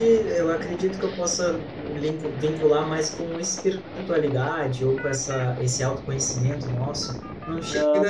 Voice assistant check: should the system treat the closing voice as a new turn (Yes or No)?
No